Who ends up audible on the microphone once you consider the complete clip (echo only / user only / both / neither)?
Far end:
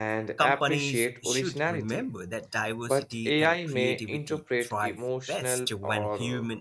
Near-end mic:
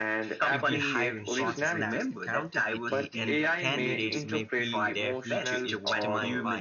both